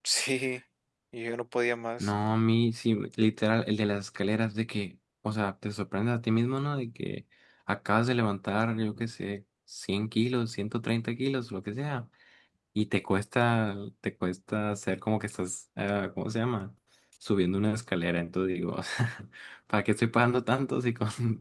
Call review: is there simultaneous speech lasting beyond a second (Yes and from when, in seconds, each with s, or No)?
No